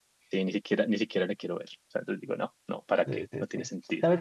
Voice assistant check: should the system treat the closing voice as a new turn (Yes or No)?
Yes